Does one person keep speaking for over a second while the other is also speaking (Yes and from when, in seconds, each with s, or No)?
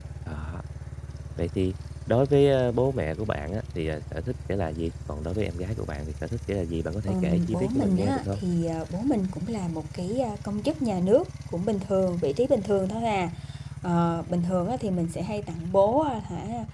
Yes, from 7.1 s